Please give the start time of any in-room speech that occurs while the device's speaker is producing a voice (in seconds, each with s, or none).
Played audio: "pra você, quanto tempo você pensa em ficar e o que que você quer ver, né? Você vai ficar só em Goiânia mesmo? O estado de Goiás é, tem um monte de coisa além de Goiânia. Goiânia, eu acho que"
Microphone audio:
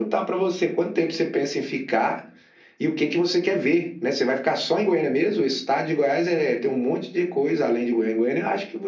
none